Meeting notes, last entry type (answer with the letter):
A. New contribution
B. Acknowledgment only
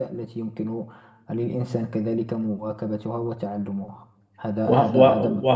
A